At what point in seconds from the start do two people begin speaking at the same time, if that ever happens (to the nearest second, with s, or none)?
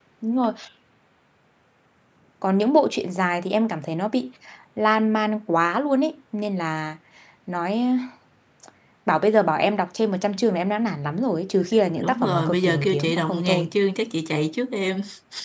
12 s